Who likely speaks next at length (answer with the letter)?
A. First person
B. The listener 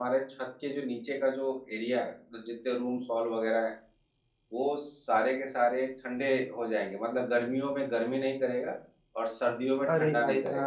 B